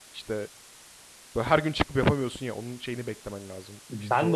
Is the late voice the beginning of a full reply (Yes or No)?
Yes